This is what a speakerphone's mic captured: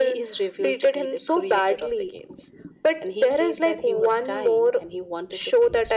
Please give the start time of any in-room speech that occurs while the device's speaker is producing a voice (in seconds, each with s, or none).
none